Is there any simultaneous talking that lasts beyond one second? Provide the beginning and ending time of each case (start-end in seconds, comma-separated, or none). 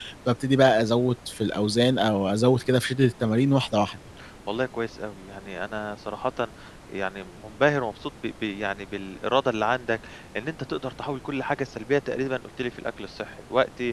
none